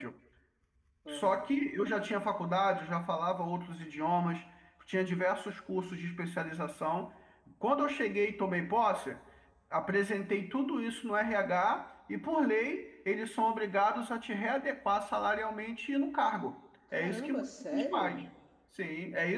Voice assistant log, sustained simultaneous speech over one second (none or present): present